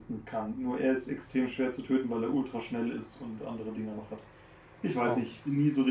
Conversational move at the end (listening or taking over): listening